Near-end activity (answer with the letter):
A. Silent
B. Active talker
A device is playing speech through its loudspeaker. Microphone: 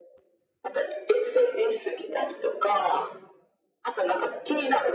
A